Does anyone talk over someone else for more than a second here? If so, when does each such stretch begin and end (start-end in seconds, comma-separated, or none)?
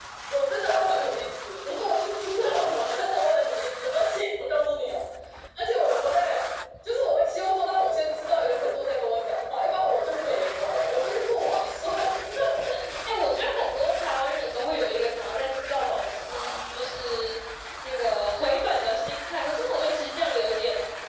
none